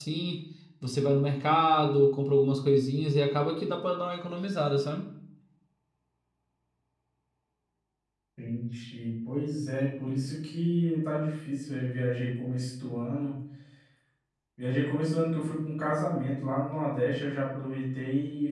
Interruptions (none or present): none